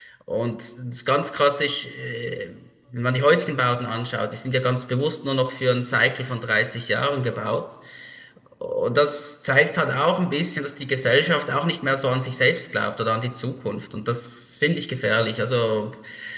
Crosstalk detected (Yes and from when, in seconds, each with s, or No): No